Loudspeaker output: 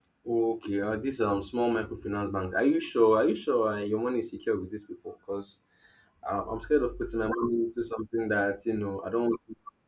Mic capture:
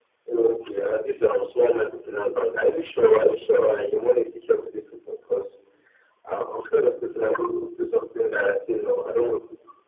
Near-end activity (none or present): none